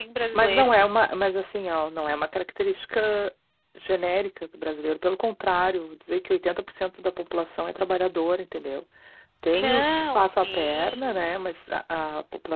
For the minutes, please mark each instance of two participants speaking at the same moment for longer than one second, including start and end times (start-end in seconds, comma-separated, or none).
9.5-11.2